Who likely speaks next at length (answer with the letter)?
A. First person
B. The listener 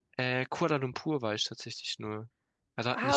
B